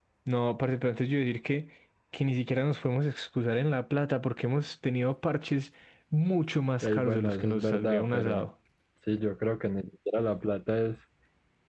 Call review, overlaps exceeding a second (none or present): present